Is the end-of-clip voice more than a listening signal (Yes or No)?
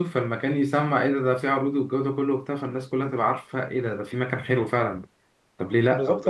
Yes